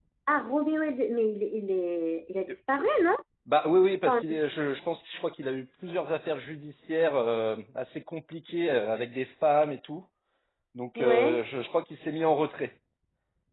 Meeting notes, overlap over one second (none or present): none